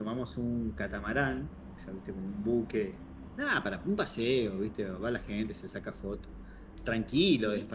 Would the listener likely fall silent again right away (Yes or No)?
Yes